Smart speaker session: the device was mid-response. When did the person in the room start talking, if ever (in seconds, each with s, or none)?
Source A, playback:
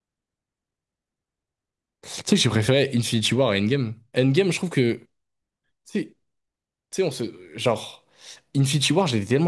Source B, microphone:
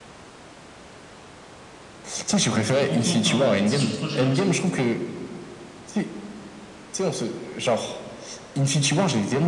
2.9 s